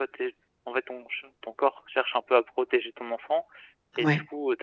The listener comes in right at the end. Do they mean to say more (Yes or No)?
No